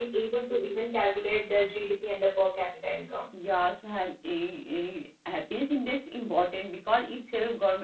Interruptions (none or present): none